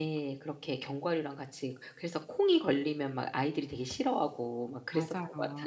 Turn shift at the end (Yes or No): Yes